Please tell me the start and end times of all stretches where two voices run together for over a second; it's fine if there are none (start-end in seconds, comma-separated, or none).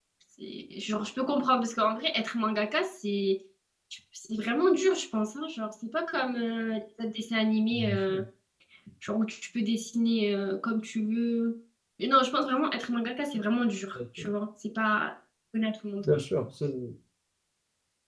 none